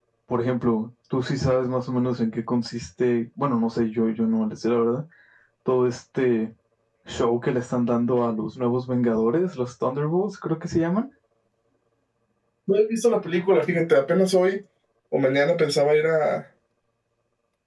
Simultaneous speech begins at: none

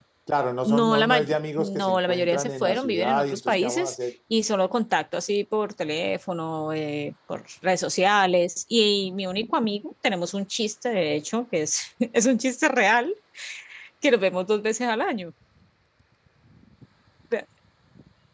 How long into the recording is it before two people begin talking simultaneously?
1 s

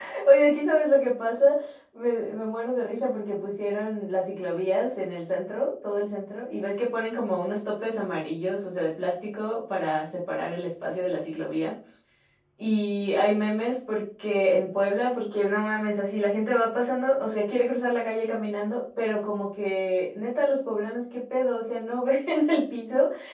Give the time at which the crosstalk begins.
none

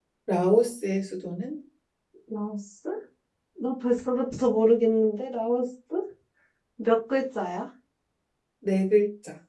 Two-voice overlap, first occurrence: none

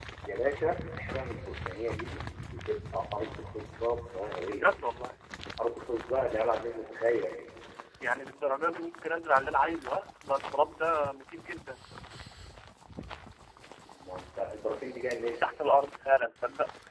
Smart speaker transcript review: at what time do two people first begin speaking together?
none

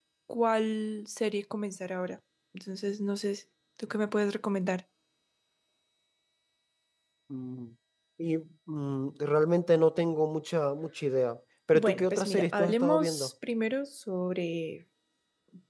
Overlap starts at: 12 s

